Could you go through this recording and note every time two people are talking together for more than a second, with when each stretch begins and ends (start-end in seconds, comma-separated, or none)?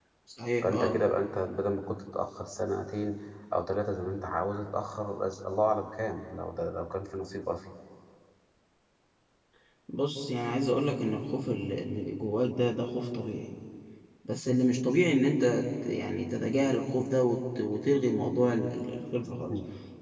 none